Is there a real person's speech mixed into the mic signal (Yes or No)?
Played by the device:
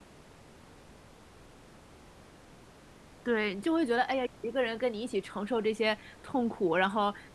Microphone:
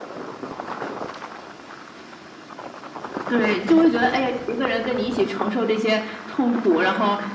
No